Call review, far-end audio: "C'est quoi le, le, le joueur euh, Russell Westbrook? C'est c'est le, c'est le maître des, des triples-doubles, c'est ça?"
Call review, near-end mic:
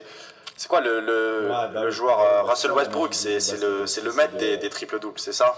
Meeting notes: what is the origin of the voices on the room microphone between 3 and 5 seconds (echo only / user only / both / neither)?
both